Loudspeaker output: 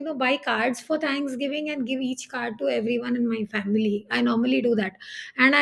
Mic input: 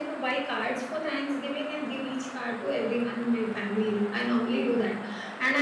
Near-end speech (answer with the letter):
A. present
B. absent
B